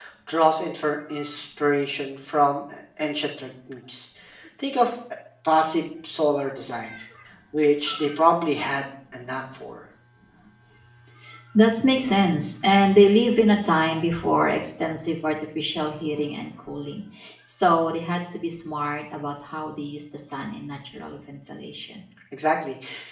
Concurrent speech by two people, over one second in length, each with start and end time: none

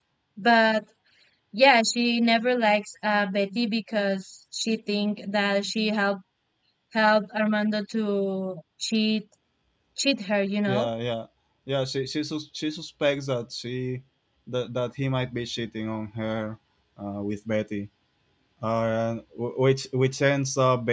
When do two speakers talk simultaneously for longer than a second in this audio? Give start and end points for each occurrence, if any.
none

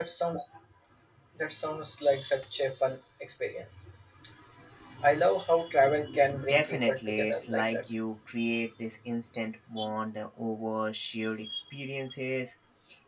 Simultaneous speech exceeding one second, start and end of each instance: 6.5-7.8

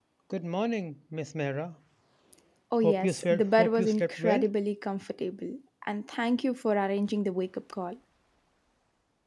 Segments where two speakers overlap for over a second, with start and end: 2.8-4.4

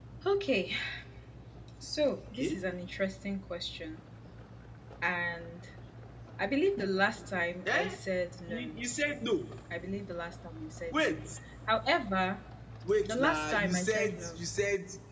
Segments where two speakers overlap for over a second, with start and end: 13.1-14.4

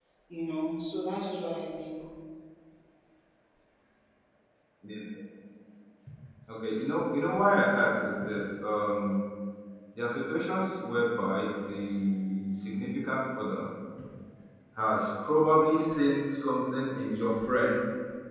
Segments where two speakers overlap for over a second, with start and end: none

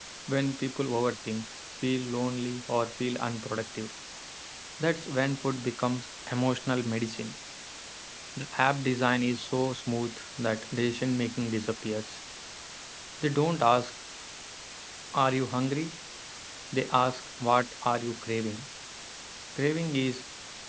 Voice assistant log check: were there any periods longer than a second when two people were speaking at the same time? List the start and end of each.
none

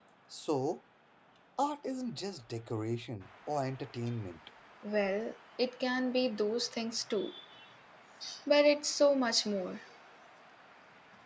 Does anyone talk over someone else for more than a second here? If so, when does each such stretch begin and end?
none

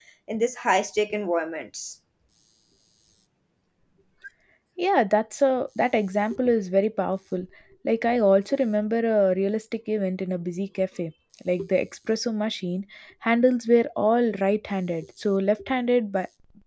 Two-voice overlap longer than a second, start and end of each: none

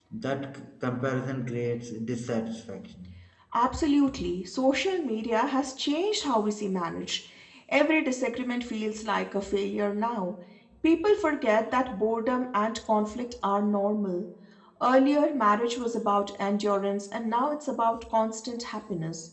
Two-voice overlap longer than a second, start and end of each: none

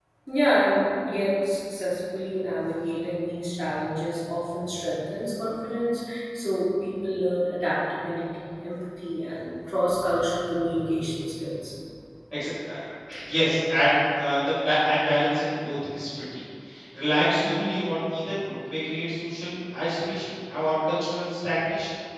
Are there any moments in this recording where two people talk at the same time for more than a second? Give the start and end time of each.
none

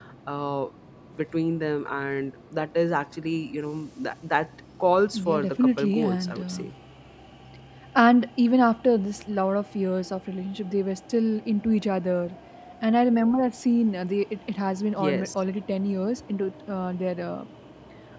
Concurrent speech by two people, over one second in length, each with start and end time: 5.1-6.6

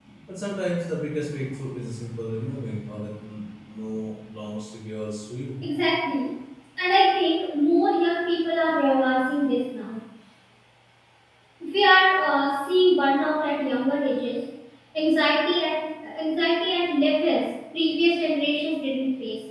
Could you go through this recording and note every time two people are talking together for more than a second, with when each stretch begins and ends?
none

